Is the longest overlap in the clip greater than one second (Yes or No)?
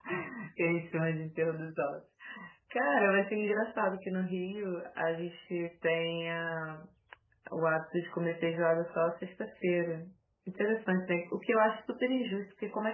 No